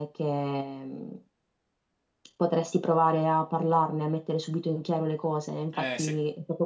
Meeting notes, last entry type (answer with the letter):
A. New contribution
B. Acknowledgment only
B